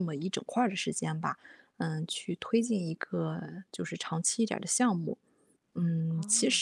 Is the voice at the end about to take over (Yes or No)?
No